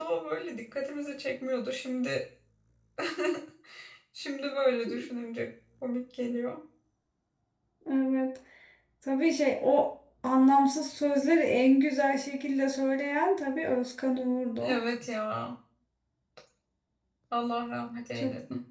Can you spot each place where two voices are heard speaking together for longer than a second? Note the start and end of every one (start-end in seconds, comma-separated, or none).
none